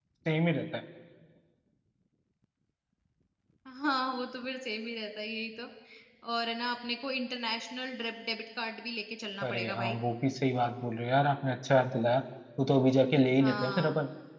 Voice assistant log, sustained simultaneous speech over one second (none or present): none